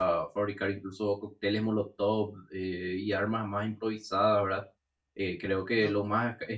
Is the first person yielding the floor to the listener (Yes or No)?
No